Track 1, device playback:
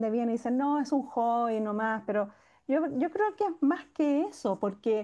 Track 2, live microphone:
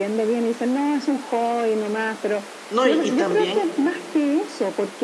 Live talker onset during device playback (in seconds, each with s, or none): 2.7 s